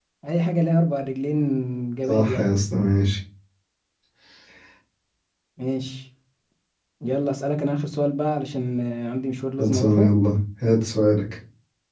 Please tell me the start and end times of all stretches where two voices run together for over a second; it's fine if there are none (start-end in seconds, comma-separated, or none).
none